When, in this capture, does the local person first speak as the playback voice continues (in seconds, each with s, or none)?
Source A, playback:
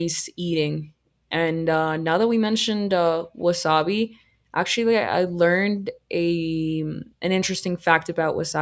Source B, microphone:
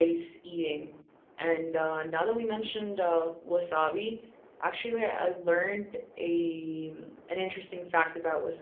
none